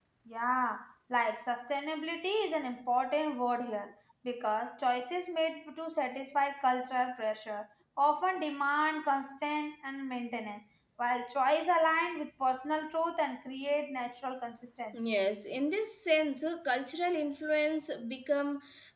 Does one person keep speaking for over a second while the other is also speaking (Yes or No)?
No